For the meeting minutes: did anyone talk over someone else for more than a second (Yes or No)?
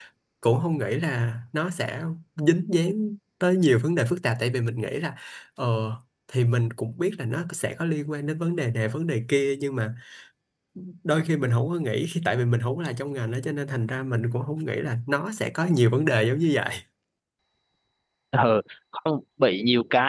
No